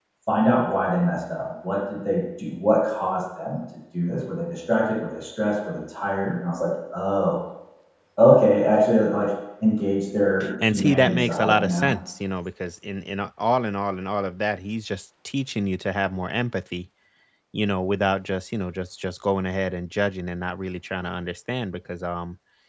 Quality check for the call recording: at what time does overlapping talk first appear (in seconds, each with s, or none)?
10.4 s